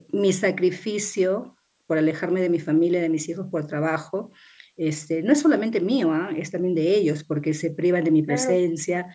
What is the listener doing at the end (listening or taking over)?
listening